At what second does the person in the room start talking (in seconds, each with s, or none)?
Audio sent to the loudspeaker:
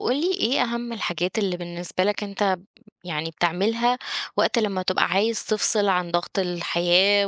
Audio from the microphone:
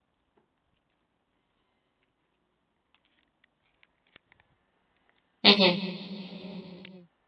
5.4 s